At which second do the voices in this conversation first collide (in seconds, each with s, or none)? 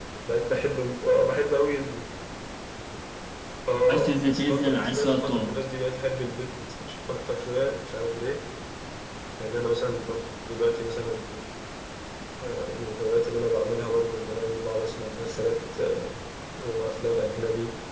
3.9 s